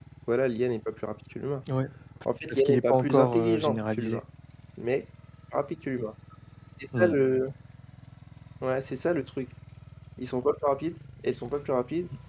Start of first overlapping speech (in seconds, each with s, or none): 2.5 s